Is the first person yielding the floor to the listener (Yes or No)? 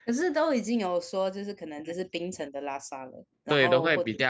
Yes